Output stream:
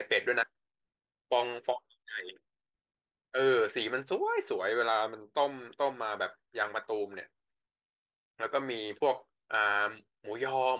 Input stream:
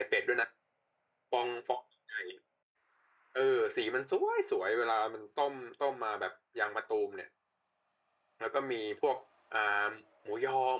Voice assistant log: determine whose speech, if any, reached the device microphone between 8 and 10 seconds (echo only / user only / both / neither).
echo only